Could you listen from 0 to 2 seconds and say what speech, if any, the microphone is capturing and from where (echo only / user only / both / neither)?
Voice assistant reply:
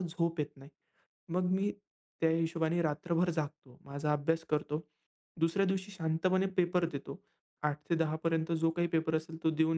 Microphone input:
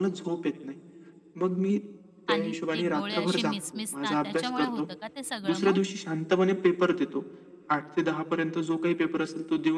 echo only